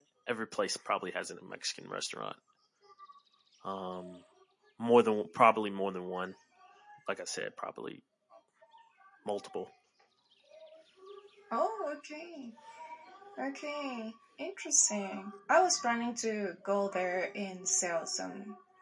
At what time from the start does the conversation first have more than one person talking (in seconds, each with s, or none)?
none